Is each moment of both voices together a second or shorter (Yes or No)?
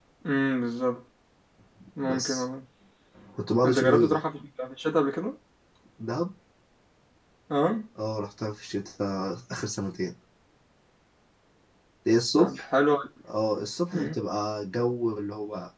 Yes